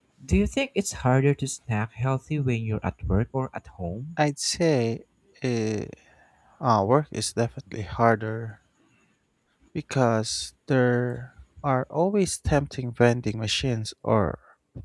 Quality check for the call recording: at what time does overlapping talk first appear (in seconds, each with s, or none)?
none